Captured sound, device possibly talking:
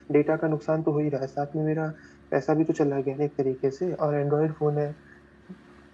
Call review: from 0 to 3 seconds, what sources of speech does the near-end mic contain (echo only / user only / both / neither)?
echo only